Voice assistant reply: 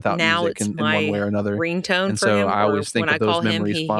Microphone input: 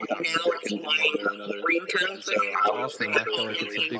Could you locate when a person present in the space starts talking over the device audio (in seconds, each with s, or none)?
2.6 s